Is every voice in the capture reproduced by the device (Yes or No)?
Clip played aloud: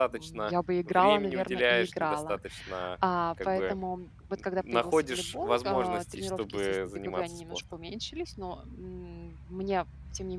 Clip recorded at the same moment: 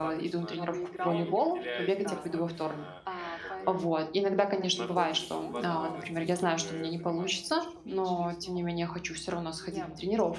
No